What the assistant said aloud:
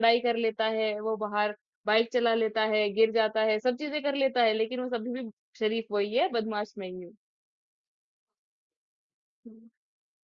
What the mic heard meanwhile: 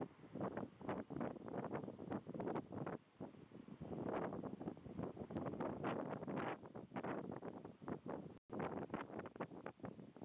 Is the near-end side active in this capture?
No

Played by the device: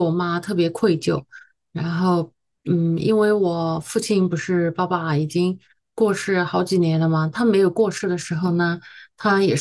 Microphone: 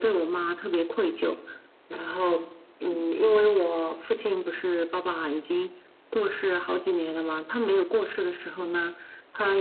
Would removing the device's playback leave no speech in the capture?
Yes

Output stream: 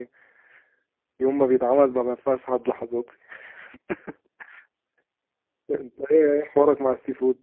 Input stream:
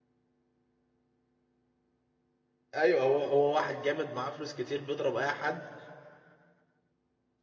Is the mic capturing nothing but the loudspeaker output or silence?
No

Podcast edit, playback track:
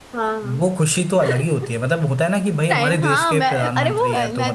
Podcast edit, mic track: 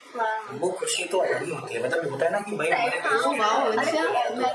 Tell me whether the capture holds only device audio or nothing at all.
No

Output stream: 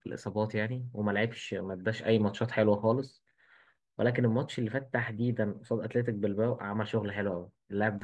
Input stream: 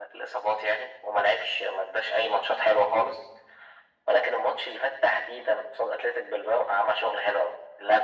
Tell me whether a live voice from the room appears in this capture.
No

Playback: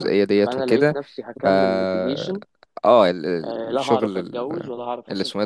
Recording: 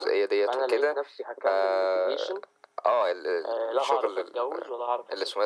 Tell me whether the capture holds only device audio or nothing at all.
Yes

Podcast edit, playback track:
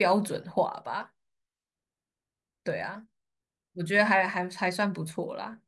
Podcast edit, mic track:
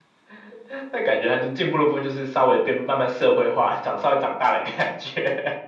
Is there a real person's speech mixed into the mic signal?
Yes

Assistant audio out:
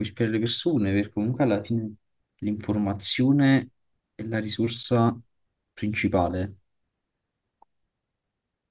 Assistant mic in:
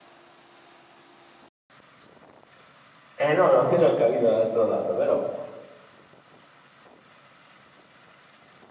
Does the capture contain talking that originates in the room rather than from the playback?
Yes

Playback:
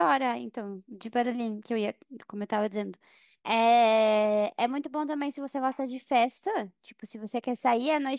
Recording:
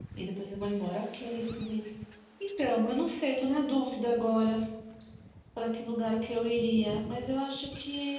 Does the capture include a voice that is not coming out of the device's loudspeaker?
Yes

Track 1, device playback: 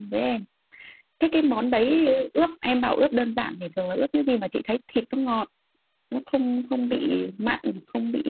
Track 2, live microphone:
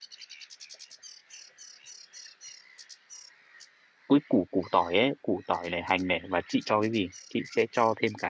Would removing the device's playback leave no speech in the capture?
No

